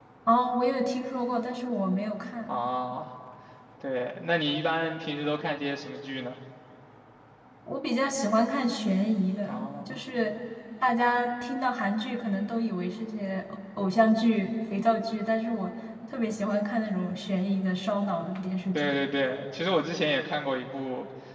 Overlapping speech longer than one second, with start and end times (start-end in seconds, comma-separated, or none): none